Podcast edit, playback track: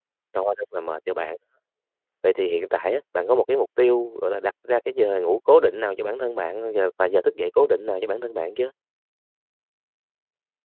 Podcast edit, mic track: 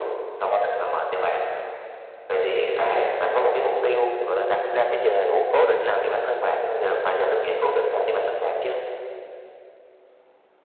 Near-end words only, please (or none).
none